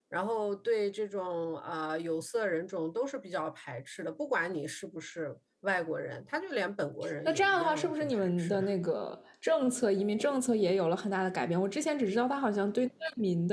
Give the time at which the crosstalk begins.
7.2 s

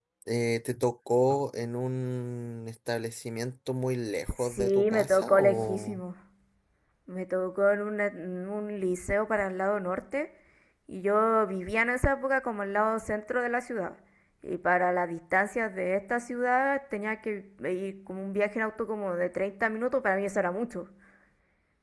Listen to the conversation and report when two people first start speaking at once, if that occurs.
4.3 s

